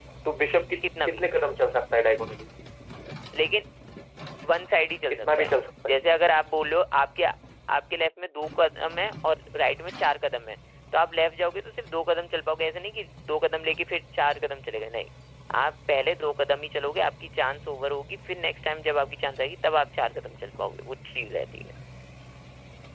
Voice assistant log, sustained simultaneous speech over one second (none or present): none